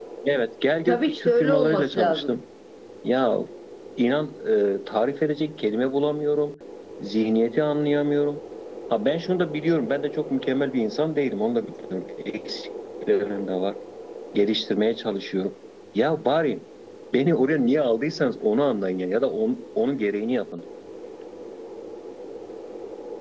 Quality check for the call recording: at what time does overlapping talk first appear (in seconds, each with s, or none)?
0.8 s